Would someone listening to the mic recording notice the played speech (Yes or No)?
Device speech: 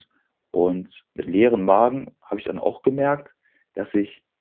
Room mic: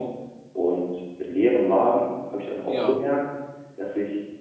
Yes